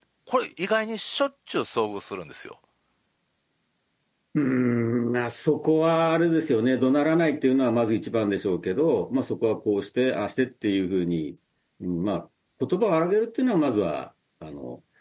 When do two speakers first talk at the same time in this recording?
none

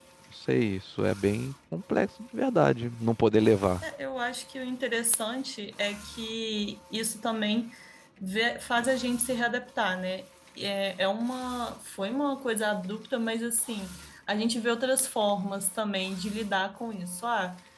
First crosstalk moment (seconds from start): none

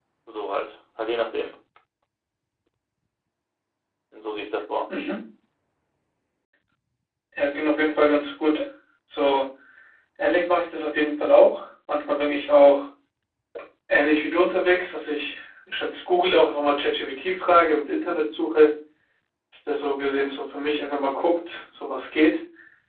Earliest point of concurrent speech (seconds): none

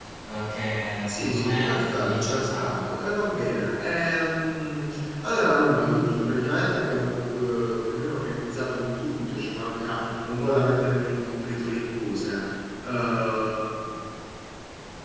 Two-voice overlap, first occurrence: 1.1 s

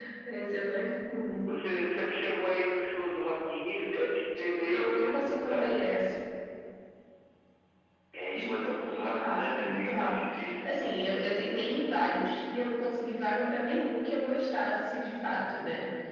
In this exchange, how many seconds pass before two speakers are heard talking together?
4.6 s

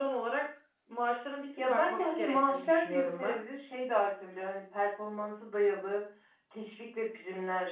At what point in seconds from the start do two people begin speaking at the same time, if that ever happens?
1.6 s

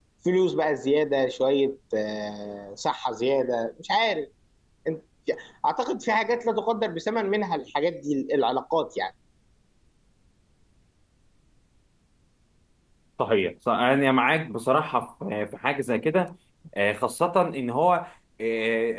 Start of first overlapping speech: none

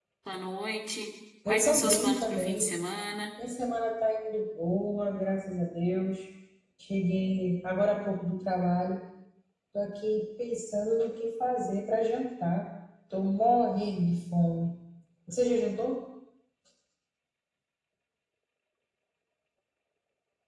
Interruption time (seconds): 1.4 s

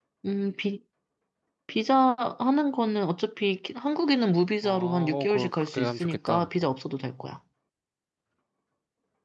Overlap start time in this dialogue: 4.6 s

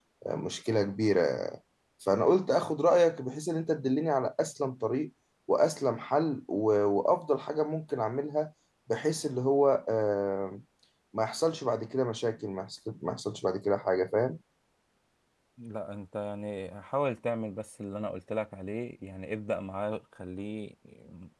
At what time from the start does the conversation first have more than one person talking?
none

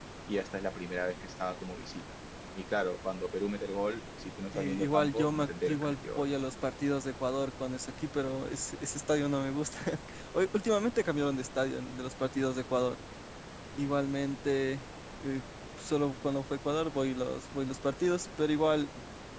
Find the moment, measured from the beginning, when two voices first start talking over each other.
4.5 s

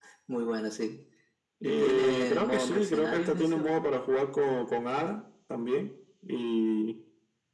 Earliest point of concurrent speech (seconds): 1.6 s

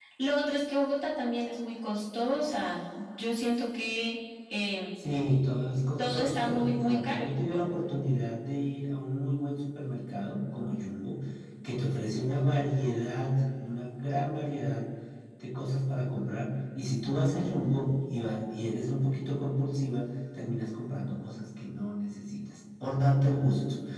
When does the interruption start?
6.0 s

